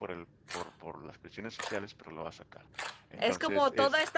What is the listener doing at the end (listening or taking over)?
taking over